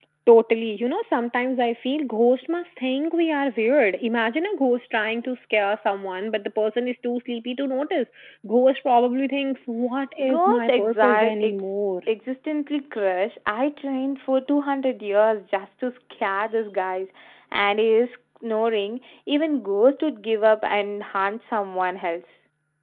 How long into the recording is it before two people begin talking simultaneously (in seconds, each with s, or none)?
10.2 s